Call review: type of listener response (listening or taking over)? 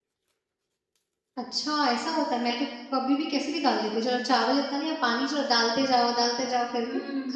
taking over